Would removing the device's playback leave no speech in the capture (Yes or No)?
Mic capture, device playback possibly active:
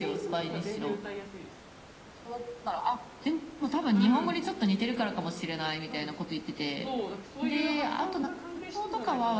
No